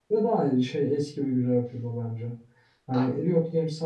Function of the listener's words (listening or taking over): listening